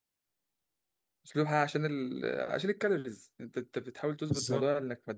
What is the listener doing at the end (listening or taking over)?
listening